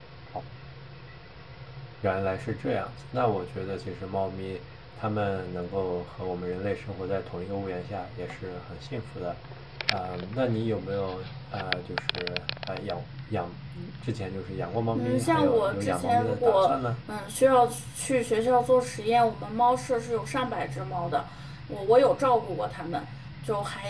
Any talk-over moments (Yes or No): Yes